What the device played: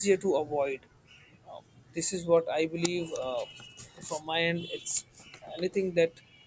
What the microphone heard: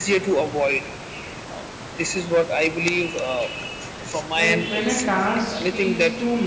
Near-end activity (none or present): present